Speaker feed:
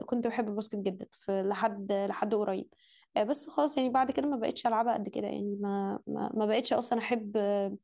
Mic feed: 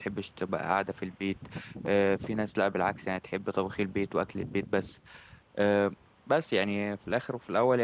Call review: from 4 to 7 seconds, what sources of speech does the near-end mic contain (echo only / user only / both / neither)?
user only